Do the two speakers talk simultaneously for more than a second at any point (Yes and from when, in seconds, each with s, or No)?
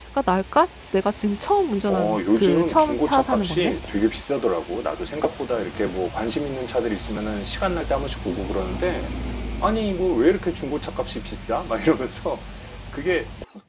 Yes, from 1.9 s